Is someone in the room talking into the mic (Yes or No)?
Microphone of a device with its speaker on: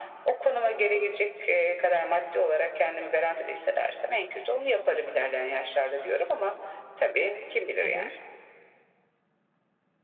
Yes